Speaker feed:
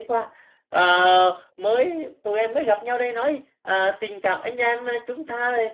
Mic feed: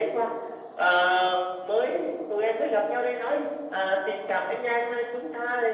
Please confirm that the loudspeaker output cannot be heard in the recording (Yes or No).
No